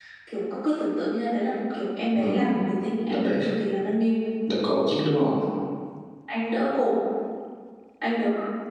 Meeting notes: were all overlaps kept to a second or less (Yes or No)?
Yes